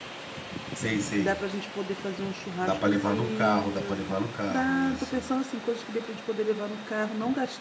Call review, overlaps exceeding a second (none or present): present